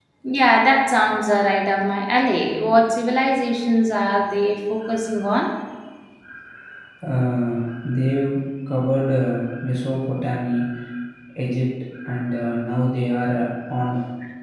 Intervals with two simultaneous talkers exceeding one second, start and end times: none

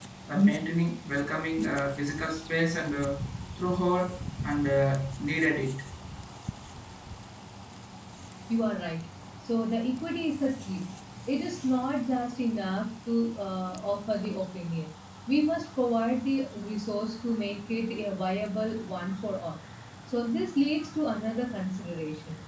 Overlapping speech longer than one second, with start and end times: none

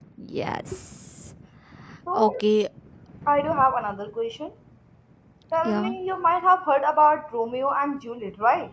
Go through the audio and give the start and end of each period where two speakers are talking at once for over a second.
none

